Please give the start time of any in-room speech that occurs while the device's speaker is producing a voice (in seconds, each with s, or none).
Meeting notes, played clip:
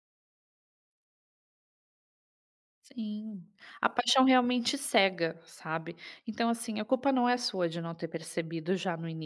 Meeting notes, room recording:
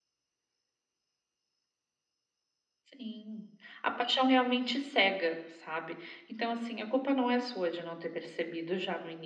none